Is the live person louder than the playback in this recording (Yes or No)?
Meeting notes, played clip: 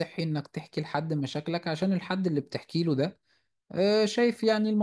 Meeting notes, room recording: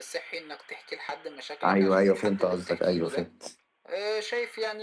Yes